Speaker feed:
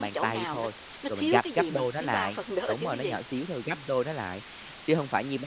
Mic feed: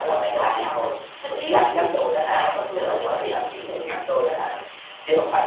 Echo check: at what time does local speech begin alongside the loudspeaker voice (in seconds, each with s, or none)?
none